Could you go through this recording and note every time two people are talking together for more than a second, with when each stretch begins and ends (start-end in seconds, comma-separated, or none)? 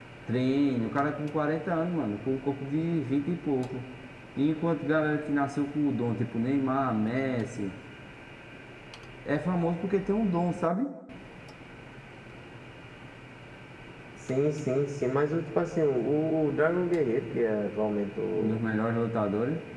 none